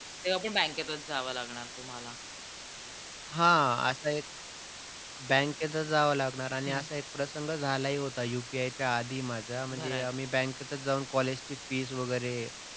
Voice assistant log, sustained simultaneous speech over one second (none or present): none